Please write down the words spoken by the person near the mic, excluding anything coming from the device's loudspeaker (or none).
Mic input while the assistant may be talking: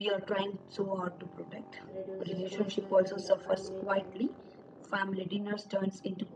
reduces personal and uh, family time.